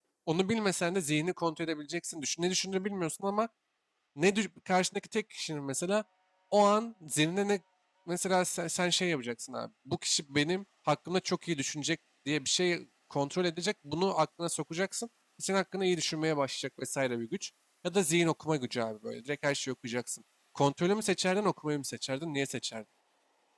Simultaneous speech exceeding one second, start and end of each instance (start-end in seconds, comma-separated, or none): none